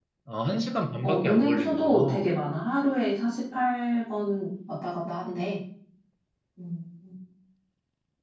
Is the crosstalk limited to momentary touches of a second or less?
No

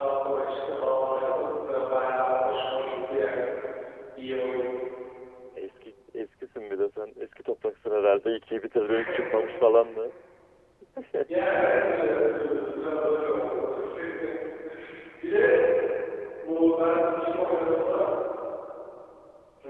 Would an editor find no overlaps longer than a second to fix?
Yes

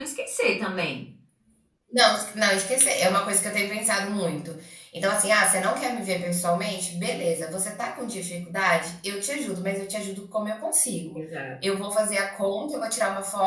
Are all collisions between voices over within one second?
Yes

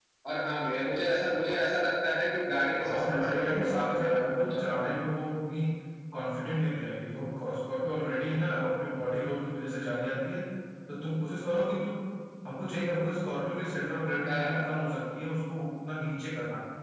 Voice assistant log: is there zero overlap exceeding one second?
No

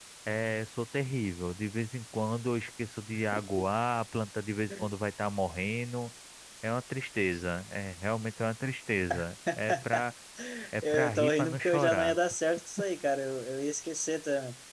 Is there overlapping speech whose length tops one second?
Yes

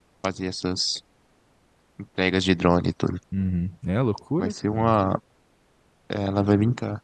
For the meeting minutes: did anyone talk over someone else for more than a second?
No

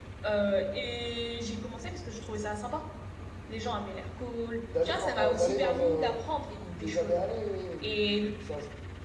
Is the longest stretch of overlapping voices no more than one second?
No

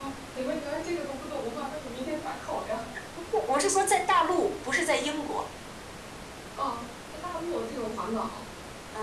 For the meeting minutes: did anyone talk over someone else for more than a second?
No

